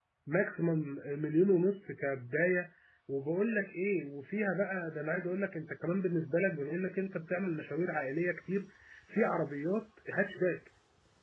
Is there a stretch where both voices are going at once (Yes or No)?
No